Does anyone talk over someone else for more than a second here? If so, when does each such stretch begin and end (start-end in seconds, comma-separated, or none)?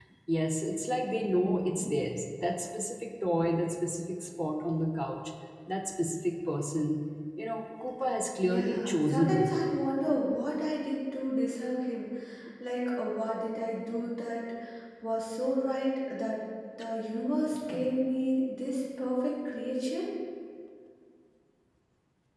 8.4-9.8